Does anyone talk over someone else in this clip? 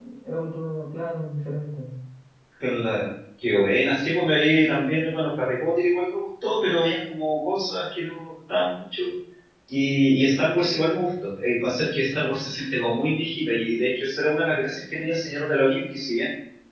No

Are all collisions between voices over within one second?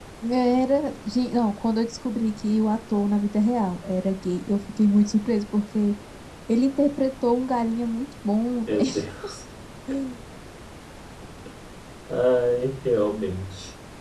Yes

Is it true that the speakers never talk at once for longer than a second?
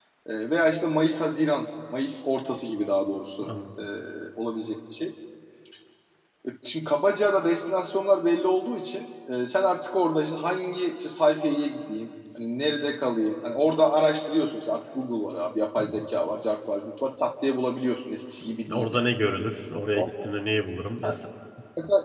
Yes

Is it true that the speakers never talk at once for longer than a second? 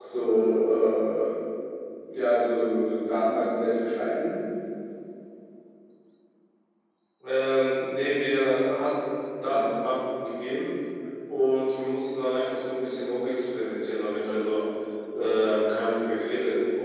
Yes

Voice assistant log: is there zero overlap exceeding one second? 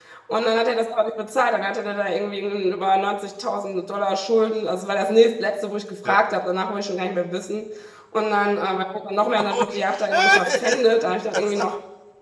No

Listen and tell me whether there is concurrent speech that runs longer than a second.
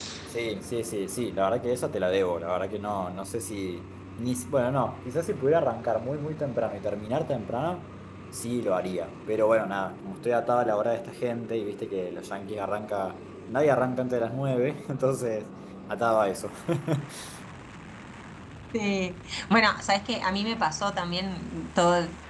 No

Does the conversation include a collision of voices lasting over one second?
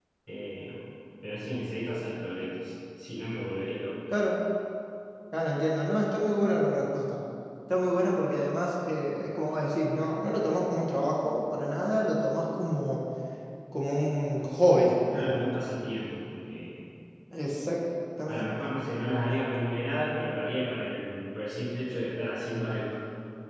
No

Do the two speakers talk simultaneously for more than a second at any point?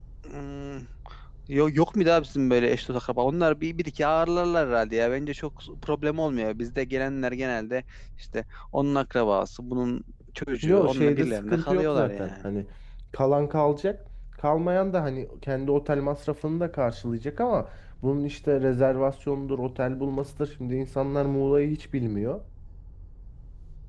Yes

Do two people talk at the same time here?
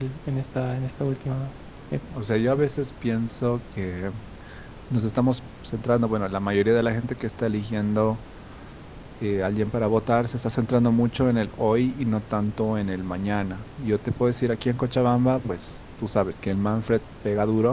No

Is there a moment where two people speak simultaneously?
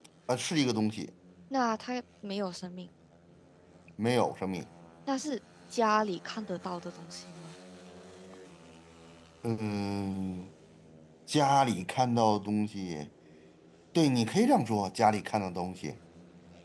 No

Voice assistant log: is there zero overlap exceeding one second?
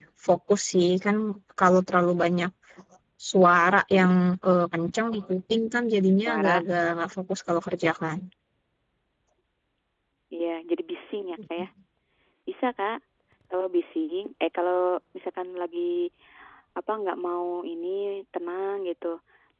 Yes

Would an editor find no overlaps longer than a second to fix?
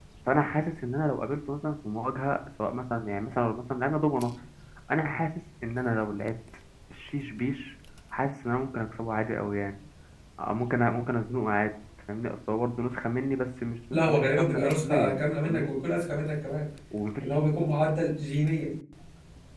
No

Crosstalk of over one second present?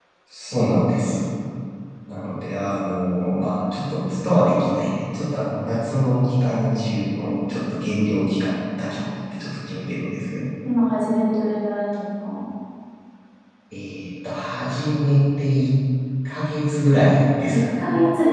No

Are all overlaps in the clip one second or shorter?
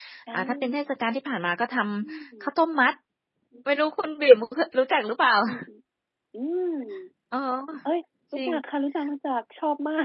Yes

